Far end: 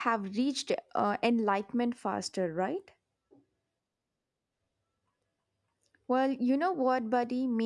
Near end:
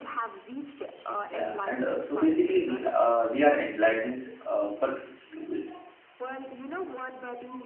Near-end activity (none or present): present